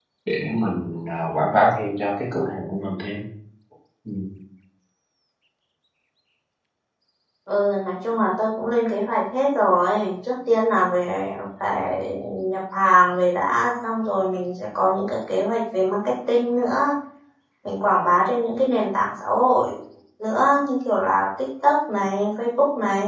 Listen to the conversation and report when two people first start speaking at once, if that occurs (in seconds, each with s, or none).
none